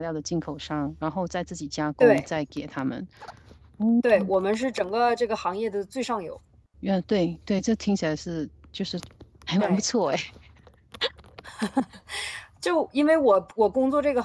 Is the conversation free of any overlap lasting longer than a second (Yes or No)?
Yes